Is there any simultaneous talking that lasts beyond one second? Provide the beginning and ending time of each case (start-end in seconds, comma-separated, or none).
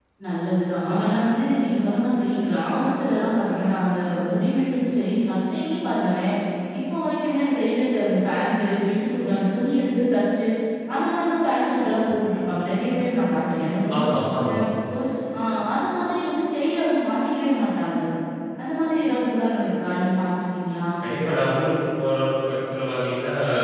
none